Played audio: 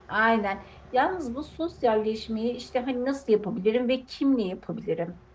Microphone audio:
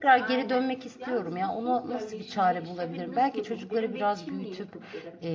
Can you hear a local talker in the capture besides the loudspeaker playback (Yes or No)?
Yes